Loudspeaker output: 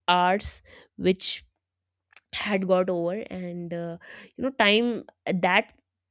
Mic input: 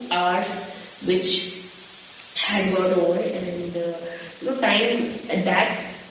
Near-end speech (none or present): none